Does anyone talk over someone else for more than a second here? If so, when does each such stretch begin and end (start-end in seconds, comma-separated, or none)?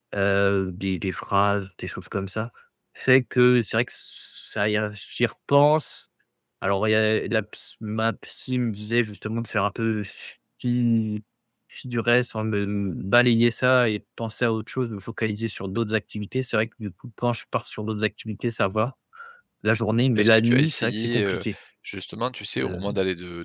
20.2-21.4